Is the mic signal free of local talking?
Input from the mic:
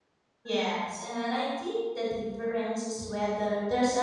No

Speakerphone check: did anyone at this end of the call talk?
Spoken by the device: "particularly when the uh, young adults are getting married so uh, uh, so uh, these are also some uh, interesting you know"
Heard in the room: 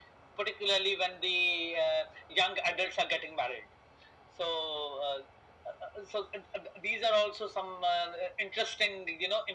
No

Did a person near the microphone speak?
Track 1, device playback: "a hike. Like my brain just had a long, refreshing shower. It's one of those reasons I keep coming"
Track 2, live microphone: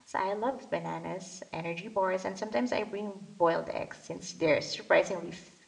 Yes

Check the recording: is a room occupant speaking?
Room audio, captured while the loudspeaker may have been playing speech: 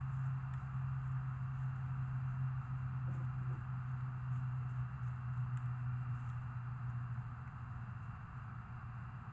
No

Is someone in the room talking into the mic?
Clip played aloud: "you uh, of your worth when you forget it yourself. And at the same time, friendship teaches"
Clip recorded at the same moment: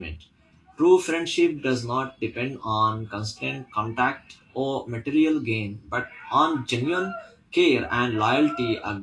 Yes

